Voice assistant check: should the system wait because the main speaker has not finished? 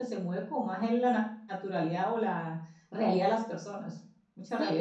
No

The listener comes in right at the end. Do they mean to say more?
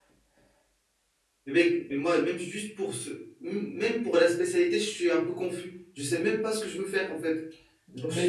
Yes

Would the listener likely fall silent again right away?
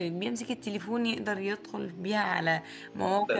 No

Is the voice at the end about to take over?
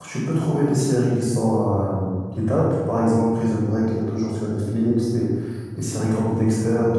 No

